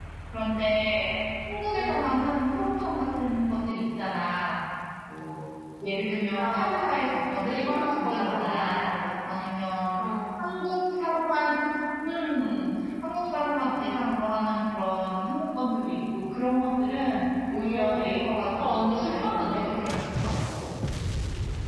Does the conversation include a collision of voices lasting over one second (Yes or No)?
Yes